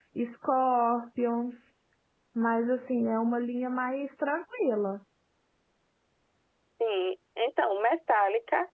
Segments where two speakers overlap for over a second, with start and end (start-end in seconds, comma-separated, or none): none